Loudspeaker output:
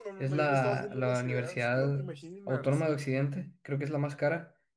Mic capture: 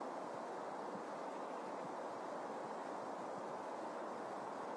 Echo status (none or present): none